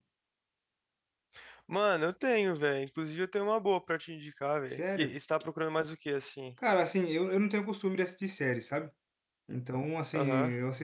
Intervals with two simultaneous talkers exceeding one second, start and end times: none

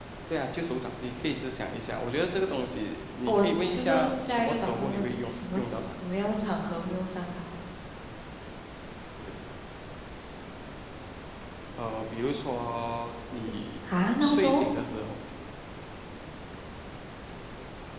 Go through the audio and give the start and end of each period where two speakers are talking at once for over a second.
3.2-5.9

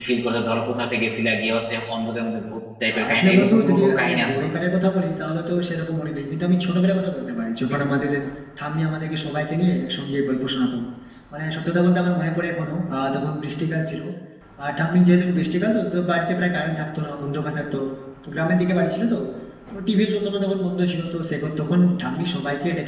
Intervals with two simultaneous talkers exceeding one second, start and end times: 3.1-4.5

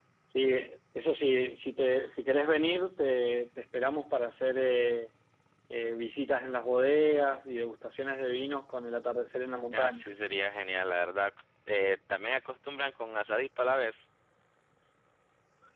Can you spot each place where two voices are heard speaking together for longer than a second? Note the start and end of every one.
none

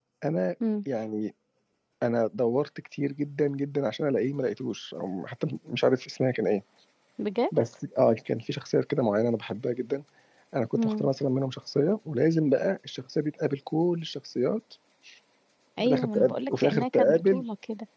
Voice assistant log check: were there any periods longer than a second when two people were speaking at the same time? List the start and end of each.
15.8-17.4

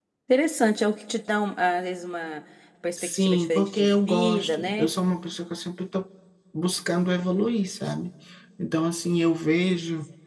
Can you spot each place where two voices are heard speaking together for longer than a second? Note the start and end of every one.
3.0-4.9

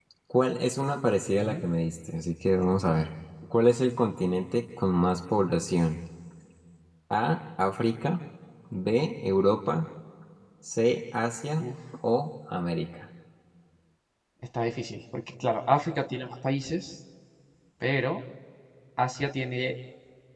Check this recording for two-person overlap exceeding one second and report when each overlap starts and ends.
none

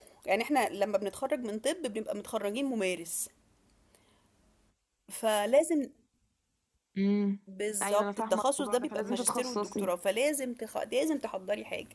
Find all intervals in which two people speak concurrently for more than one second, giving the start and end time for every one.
7.8-9.9

